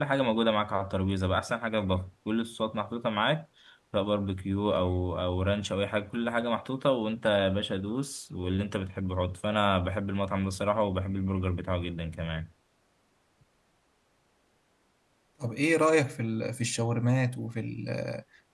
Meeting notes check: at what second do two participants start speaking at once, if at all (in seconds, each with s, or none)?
none